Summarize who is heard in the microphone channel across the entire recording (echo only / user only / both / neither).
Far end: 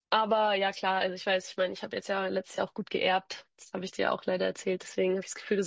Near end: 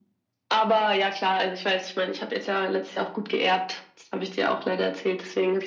echo only